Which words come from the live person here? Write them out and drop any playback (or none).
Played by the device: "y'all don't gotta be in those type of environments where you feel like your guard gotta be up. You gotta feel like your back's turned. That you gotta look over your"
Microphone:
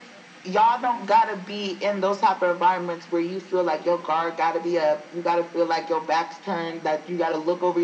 none